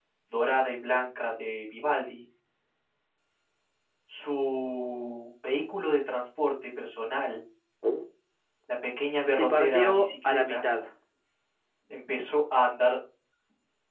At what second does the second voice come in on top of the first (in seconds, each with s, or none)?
9.3 s